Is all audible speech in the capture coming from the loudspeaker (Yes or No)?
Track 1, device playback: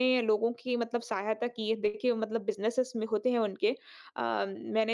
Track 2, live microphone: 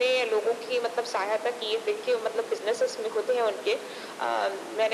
Yes